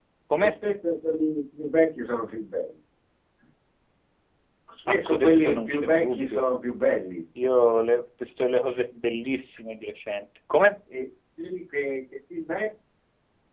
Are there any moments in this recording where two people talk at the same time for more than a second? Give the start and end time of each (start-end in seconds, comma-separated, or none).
4.9-6.5